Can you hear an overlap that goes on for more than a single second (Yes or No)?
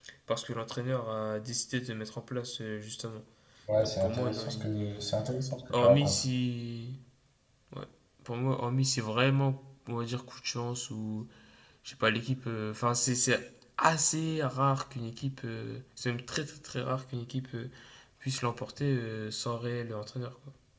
Yes